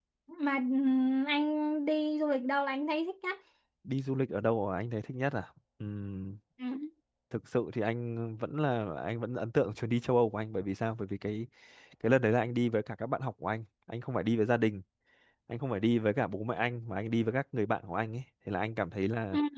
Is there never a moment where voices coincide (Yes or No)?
Yes